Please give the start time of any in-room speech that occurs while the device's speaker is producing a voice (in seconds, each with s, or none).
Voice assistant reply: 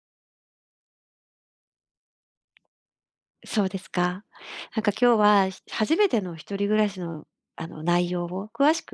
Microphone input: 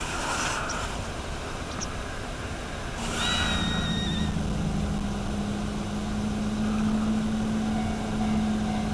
none